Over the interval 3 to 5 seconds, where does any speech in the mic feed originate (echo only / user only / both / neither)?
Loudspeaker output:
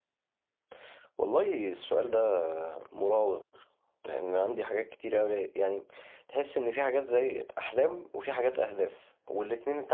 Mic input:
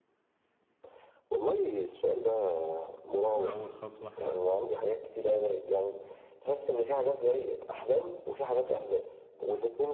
both